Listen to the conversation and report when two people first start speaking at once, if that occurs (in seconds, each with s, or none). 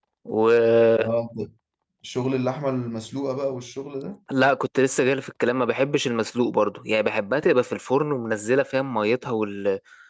none